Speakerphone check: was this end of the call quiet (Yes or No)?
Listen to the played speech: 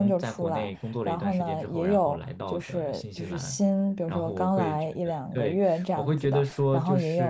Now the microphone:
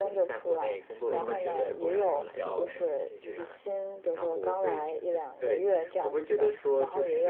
No